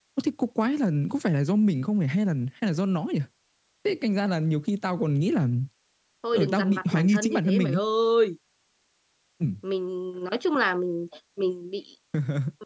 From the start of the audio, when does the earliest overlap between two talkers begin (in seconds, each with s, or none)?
6.3 s